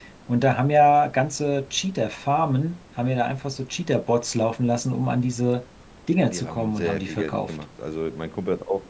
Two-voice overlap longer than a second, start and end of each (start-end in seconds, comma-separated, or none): 6.1-7.5